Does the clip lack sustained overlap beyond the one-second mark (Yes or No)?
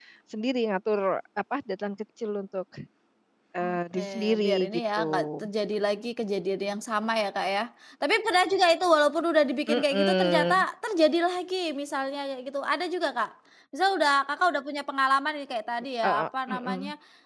No